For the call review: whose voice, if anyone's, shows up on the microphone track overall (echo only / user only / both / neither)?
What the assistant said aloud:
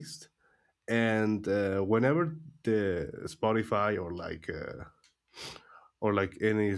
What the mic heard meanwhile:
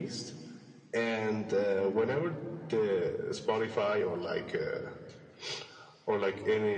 echo only